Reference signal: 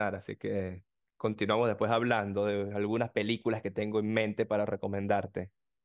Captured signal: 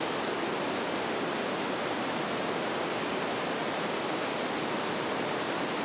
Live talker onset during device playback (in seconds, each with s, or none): none